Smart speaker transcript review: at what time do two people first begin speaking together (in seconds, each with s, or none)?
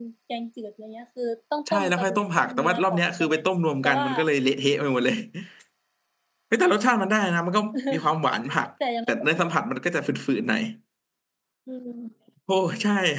1.7 s